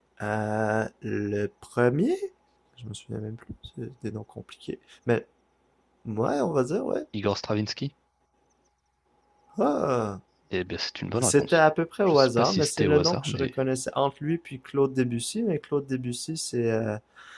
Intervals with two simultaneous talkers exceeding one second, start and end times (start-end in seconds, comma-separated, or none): 12.1-13.5